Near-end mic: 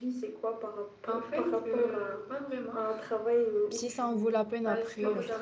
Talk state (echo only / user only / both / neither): both